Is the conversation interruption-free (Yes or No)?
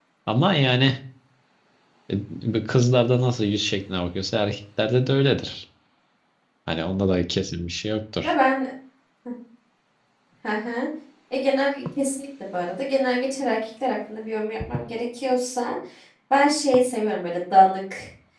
Yes